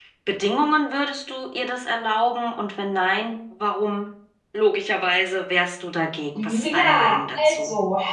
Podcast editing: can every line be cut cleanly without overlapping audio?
No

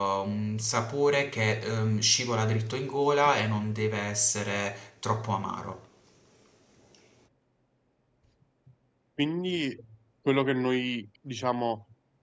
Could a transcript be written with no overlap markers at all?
Yes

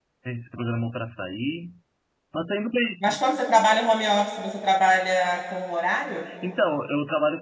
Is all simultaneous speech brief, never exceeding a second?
Yes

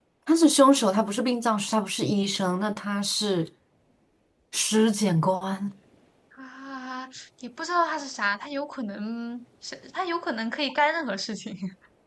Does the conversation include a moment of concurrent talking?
No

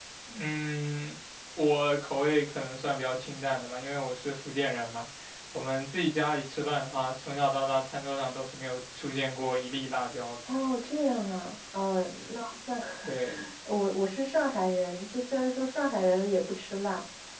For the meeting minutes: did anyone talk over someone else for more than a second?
No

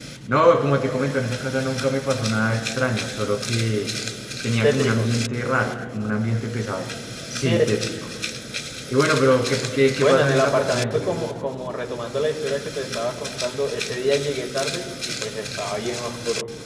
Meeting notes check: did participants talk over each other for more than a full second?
Yes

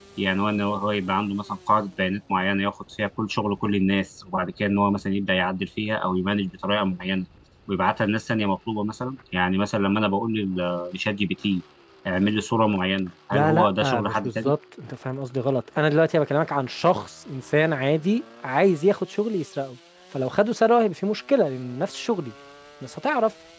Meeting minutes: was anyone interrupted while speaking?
Yes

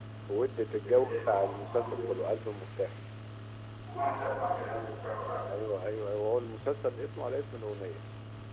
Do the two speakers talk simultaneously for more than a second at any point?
Yes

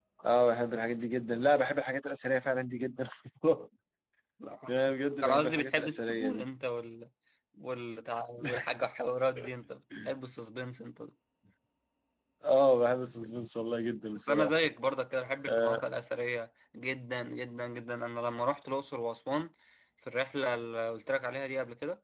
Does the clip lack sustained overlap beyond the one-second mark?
No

